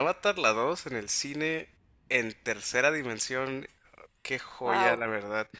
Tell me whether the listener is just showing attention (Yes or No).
Yes